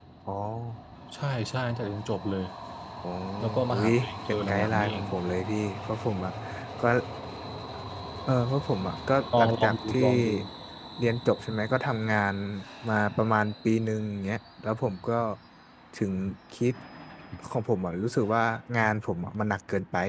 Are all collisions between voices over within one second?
No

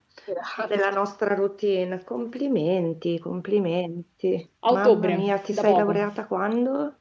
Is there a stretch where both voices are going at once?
Yes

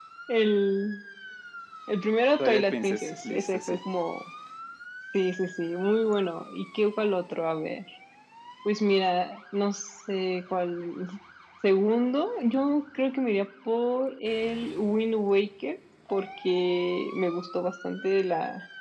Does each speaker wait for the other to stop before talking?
No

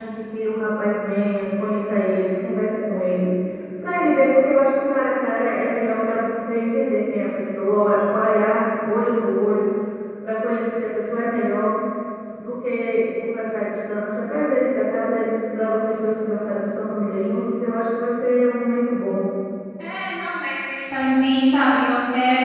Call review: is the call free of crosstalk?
Yes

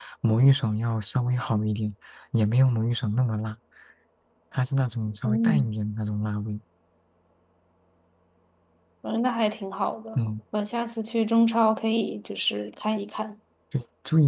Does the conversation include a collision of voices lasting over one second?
No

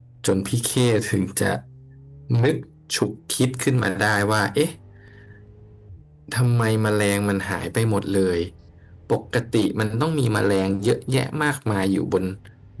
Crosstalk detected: No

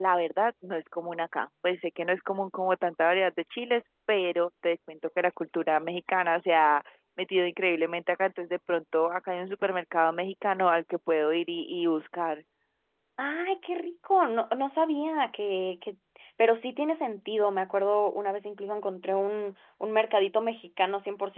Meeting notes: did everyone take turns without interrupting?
Yes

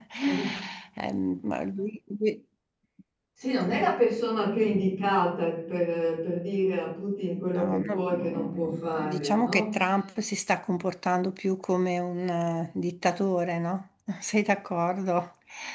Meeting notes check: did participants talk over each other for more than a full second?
Yes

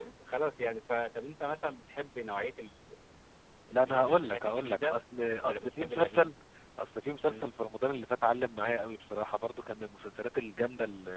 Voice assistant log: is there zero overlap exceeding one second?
No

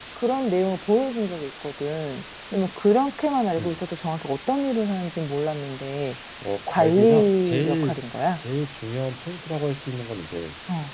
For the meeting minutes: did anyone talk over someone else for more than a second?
Yes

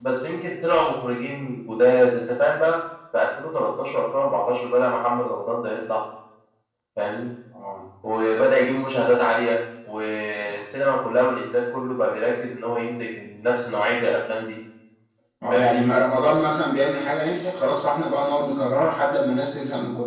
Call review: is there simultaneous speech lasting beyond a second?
No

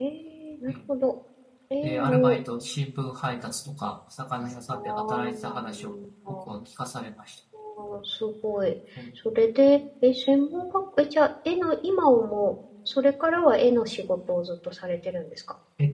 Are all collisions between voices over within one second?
No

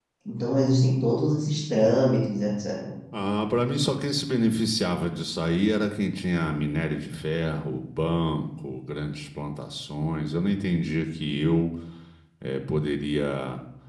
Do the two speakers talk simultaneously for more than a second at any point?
No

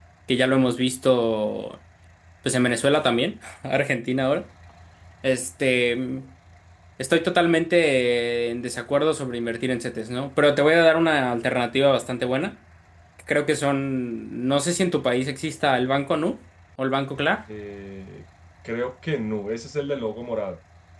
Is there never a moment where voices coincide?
Yes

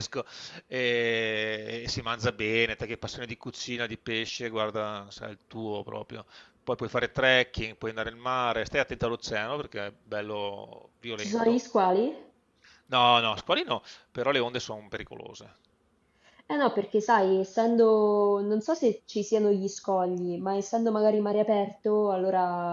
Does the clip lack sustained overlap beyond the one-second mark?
Yes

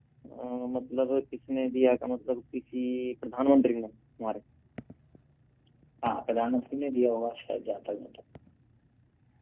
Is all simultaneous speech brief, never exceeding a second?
Yes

